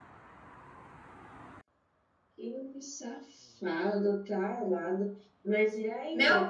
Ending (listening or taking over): taking over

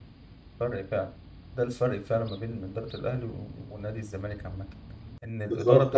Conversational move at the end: listening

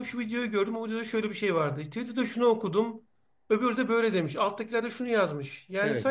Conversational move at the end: listening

